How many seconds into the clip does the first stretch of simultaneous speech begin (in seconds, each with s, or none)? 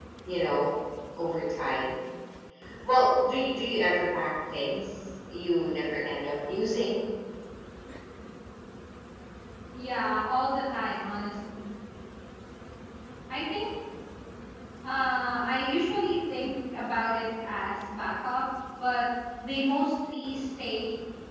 none